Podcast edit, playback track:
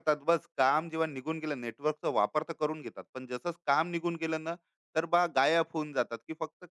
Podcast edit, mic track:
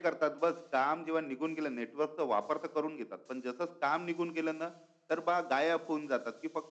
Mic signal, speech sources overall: echo only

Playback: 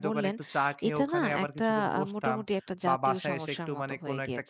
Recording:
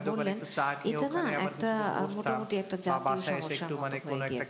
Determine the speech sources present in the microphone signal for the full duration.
echo only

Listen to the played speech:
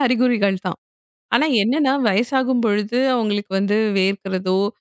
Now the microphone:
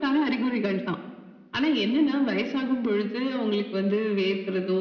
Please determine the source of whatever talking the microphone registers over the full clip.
echo only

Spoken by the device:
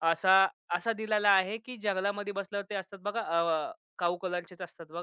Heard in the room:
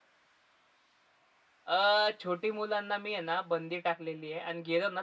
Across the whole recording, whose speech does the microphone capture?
user only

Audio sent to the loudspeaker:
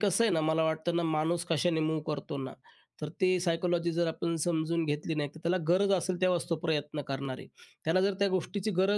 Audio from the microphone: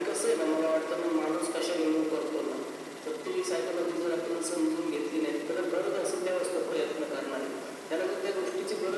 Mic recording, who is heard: echo only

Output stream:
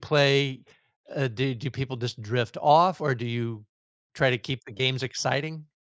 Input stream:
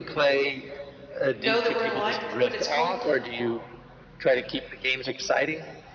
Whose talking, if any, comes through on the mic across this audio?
both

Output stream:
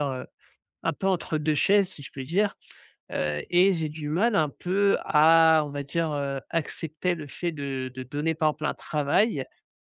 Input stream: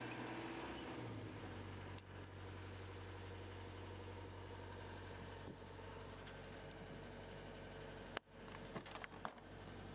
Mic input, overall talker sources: neither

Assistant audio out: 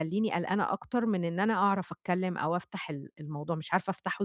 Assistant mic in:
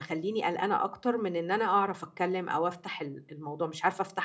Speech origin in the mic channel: echo only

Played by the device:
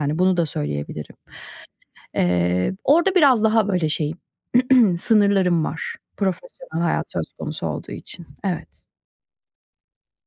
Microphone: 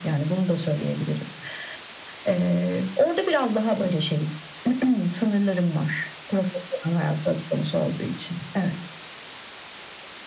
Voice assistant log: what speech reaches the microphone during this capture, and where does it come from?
echo only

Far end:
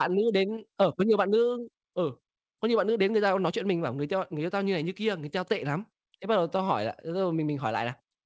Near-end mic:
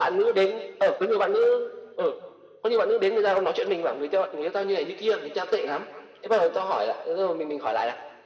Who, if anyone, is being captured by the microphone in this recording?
echo only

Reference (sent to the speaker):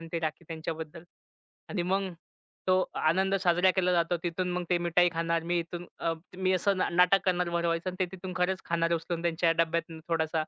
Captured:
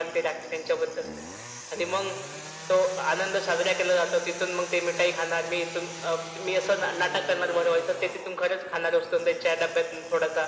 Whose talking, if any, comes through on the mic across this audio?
echo only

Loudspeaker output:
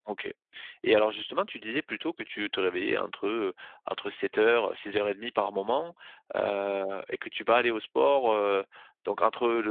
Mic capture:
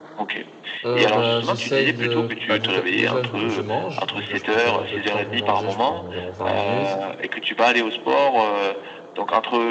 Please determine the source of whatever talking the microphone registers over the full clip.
both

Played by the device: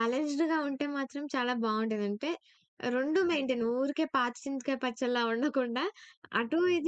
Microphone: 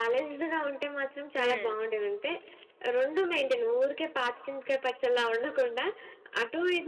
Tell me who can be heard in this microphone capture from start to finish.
both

